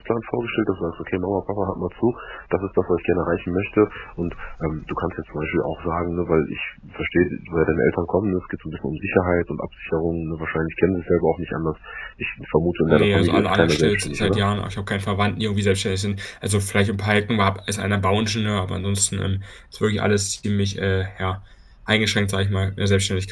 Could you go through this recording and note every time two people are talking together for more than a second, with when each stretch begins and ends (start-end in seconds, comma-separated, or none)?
12.9-14.4